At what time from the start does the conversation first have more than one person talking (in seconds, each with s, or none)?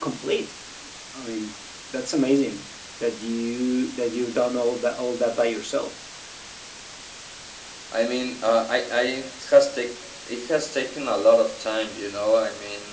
none